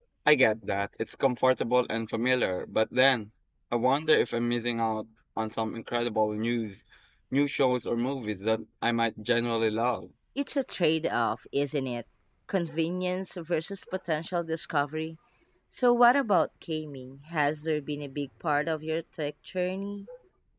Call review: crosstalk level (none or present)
none